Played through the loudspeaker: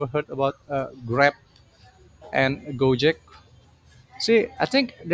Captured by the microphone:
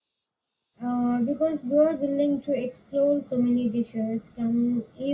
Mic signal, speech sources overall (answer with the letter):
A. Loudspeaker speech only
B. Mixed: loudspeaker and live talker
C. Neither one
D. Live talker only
D